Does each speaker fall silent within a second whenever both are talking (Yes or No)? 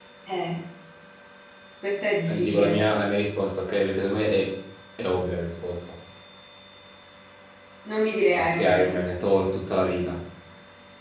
Yes